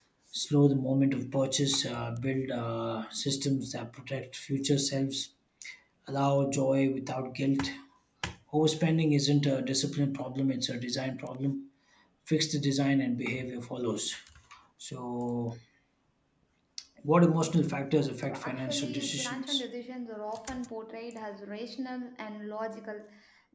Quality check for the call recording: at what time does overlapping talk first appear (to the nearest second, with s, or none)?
18 s